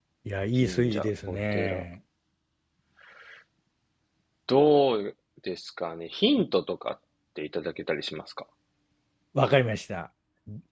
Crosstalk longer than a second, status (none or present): present